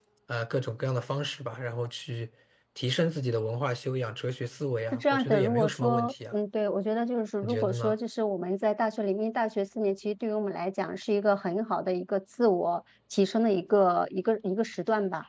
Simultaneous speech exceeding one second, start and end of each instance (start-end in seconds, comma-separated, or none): 4.9-6.3